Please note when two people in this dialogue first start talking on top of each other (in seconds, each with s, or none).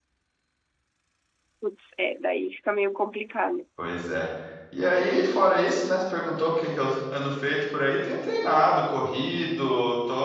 none